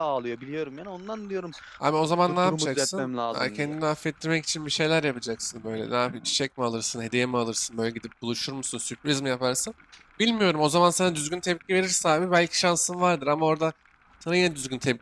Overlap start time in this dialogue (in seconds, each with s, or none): 2.3 s